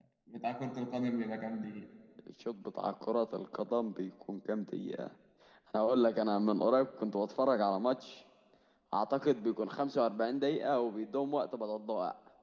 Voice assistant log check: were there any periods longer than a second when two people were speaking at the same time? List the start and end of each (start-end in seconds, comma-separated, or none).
none